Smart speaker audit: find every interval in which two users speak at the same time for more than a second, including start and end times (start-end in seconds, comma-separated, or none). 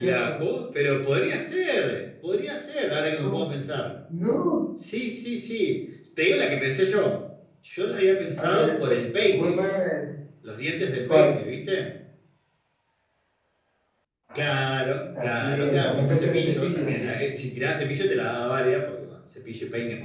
15.2-17.4